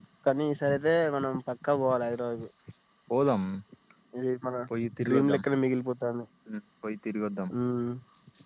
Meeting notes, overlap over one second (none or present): none